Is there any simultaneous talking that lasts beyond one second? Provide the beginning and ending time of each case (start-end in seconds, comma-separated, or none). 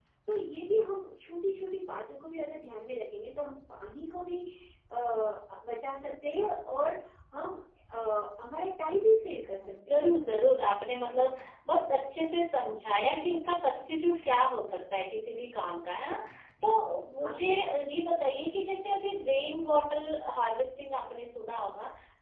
none